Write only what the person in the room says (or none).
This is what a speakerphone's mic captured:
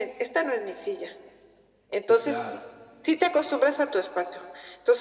Sí, claro.